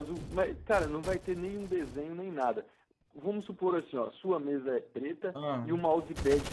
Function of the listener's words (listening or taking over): listening